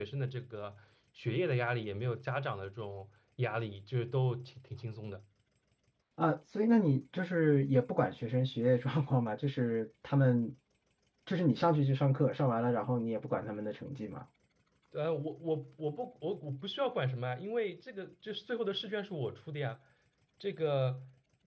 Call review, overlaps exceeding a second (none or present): none